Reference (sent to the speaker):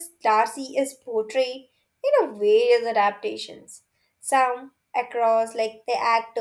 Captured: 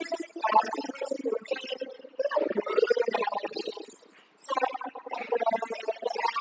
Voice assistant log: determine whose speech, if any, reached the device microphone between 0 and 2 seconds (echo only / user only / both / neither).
echo only